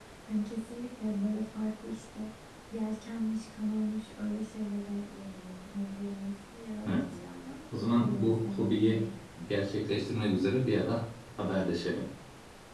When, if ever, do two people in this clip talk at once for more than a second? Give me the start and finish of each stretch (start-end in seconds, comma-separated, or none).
7.7-9.0